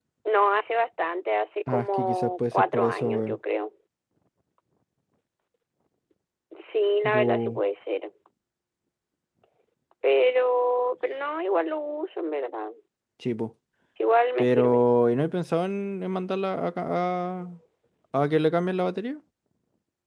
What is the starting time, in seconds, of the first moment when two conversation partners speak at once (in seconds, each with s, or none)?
1.7 s